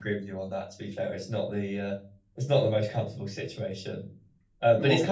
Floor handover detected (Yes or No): No